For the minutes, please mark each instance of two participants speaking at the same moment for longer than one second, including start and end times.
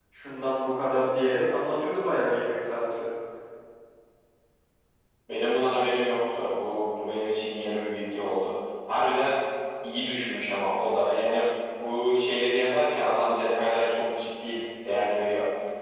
none

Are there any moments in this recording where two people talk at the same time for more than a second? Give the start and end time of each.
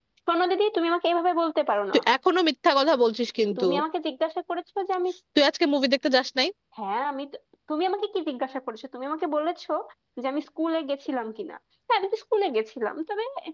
none

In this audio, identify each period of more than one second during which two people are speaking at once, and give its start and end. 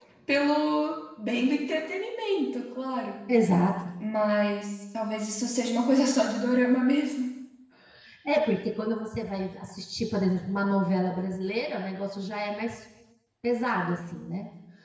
none

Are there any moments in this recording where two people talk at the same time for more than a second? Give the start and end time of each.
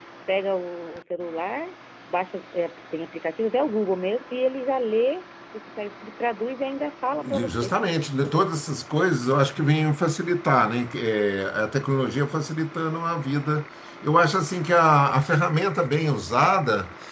none

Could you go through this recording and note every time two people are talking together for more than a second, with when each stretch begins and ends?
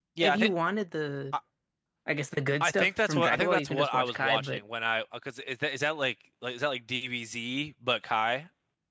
2.6-4.6

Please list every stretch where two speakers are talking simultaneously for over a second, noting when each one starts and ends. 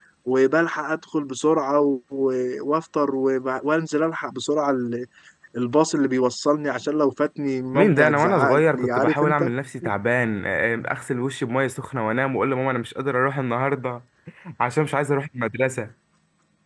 7.7-9.5

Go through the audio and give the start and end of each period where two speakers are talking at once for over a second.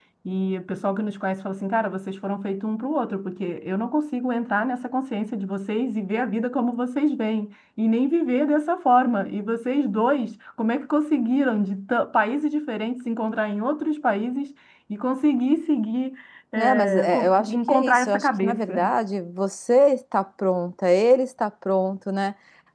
16.6-18.8

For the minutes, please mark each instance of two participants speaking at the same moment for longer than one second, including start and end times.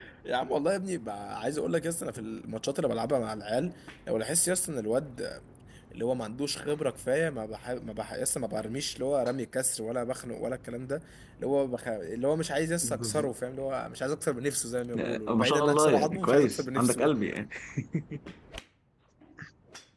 14.9-17.1

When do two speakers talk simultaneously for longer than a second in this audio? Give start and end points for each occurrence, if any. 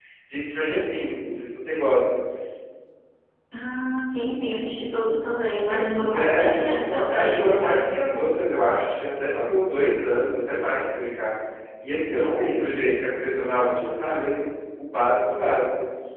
5.7-7.9

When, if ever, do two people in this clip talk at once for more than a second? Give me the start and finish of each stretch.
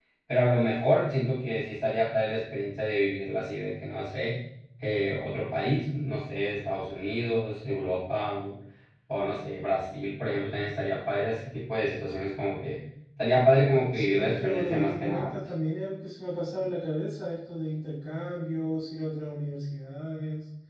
13.9-15.3

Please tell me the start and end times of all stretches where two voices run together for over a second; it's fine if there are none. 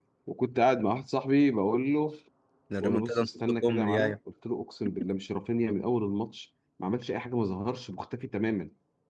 2.8-4.1

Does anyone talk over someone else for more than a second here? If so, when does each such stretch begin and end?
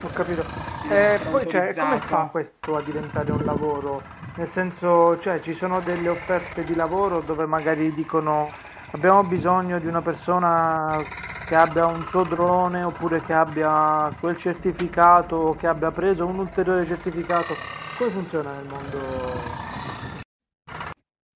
0.9-2.3

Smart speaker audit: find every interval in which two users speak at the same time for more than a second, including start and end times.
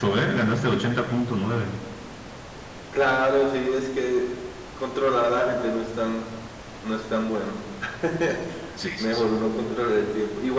none

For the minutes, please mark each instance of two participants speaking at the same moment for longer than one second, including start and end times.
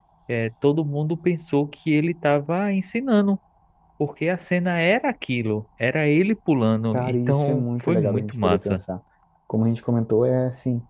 6.9-8.8

